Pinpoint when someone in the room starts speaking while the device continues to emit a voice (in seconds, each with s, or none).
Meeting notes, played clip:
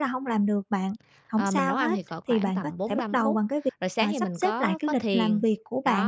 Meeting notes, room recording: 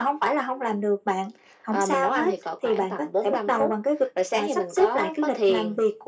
none